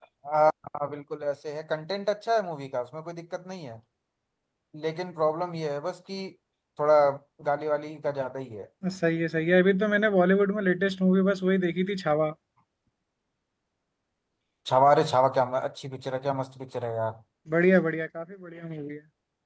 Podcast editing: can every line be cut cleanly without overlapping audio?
Yes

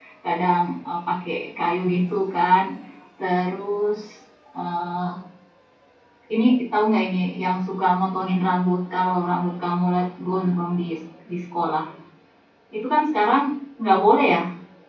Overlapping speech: No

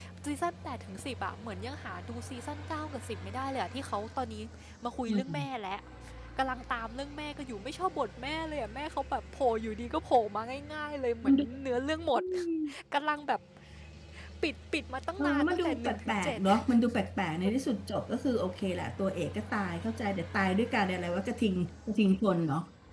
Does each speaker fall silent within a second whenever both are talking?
No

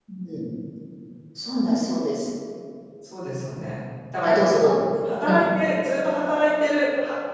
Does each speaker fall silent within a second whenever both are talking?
Yes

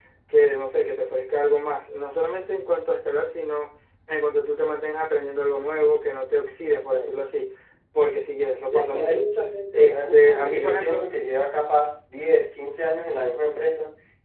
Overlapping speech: Yes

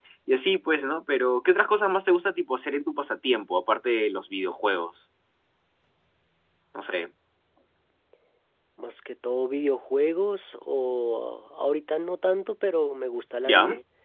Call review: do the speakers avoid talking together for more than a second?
Yes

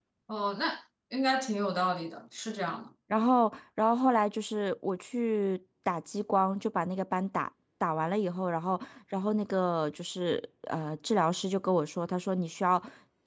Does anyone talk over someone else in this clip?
No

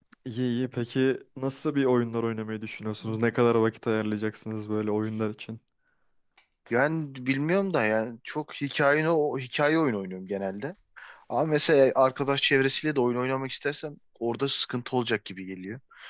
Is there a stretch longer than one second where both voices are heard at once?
No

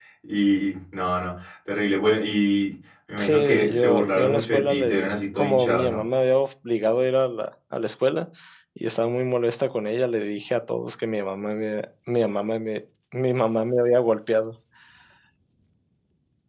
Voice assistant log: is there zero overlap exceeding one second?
No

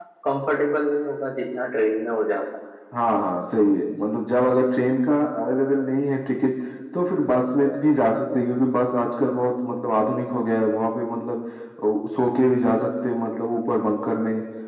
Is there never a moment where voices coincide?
Yes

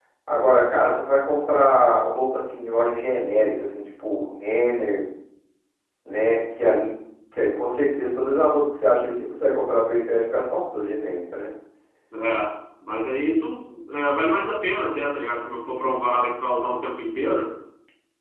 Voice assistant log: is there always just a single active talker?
Yes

